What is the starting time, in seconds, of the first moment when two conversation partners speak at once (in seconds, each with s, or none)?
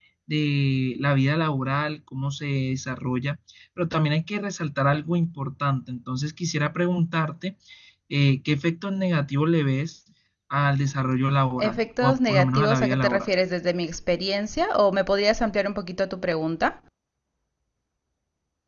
11.6 s